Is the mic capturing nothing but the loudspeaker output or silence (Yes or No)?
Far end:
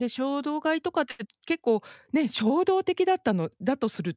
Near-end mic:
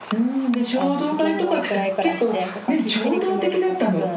No